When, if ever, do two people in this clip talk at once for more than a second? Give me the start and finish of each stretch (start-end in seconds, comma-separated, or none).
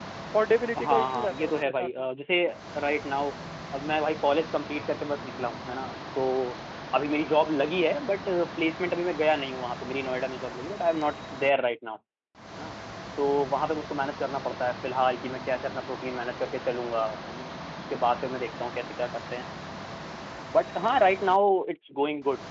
0.8-2.1